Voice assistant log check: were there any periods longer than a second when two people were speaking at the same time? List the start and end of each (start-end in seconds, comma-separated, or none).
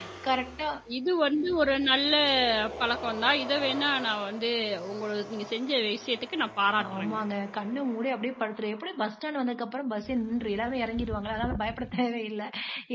none